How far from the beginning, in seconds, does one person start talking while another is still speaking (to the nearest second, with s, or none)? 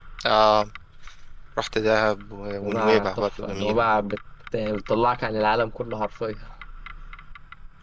3 s